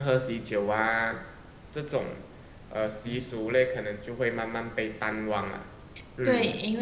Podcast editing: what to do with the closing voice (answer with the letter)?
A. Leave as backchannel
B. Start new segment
B